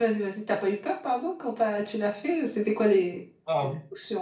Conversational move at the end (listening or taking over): taking over